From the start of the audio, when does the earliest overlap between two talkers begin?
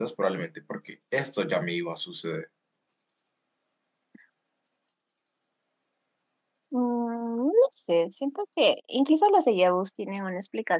none

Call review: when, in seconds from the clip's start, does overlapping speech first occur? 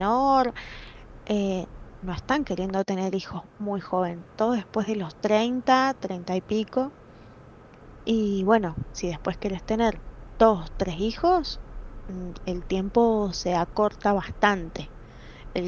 none

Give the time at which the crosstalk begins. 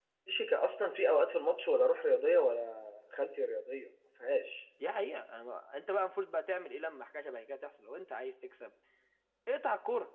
none

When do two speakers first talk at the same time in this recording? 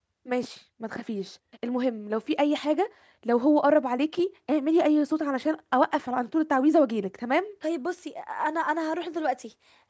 none

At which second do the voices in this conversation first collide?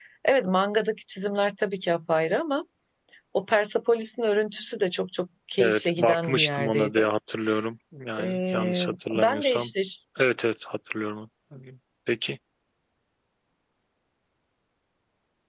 5.6 s

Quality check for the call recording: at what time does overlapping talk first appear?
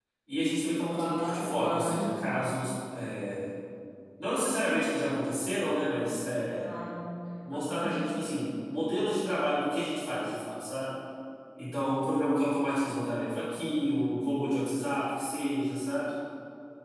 0.9 s

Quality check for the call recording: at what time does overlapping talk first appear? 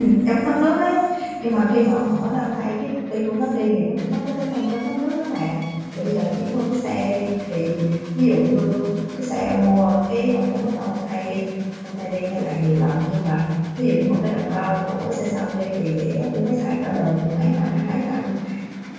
none

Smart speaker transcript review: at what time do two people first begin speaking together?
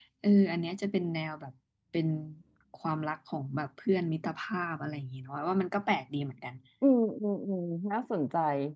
none

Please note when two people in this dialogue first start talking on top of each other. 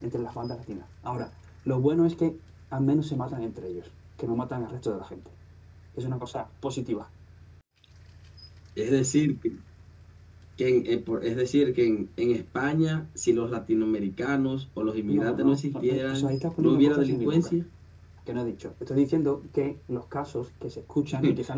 15.1 s

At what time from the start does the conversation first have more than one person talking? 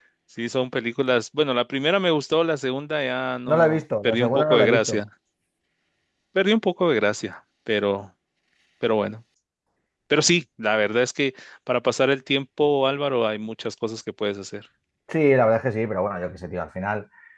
3.5 s

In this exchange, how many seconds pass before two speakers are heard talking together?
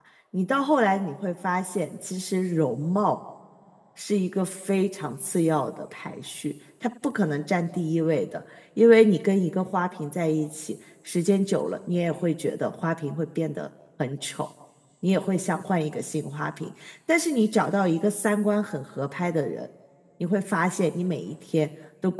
none

